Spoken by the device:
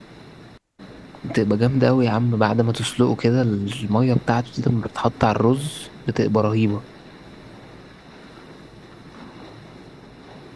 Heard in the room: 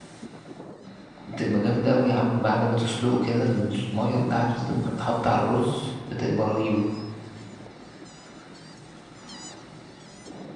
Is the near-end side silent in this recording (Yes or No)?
Yes